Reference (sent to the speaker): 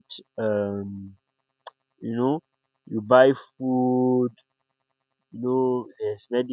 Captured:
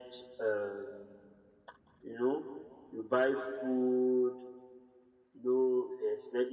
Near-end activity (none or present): none